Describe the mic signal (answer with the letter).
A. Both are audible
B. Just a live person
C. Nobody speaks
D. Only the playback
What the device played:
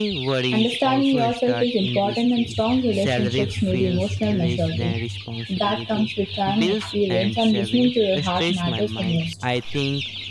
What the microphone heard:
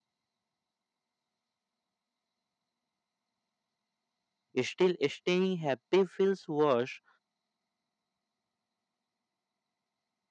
B